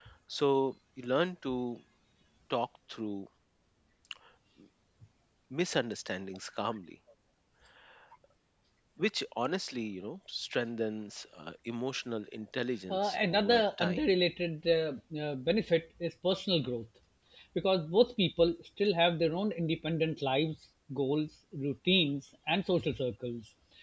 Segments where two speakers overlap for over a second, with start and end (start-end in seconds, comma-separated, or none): 12.9-14.1